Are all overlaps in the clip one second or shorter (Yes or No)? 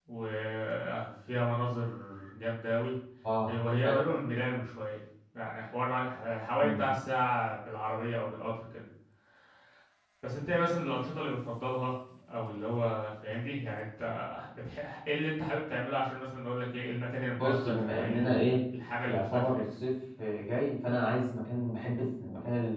No